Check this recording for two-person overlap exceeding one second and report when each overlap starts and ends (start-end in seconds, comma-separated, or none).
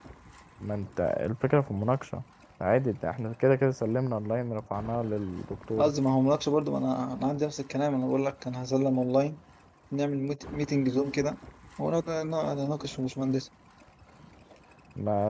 none